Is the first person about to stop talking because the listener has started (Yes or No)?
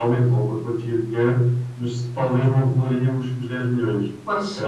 No